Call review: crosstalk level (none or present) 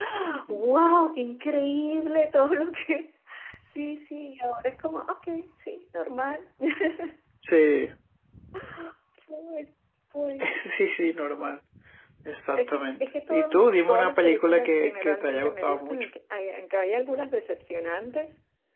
present